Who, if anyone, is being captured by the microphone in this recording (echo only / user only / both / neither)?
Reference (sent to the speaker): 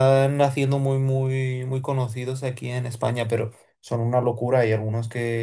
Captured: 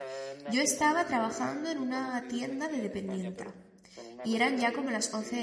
both